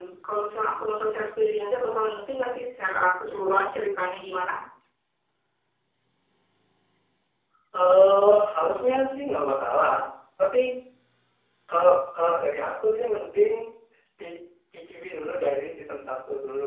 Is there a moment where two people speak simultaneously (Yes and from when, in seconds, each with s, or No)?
No